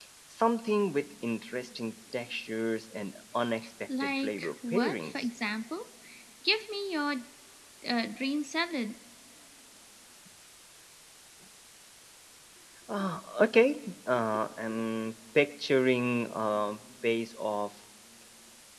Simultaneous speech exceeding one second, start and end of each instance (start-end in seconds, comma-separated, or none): 4.0-5.3